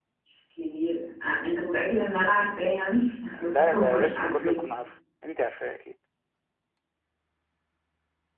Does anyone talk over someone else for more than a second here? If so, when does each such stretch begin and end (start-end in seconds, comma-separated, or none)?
3.4-4.6